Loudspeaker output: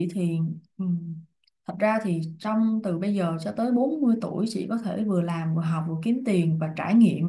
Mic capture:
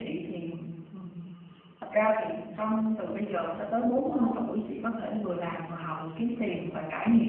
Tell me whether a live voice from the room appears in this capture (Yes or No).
Yes